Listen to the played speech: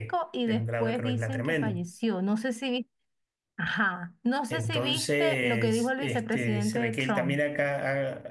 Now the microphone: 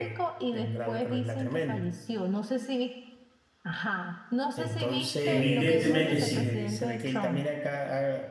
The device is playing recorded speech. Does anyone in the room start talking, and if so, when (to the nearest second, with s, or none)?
5 s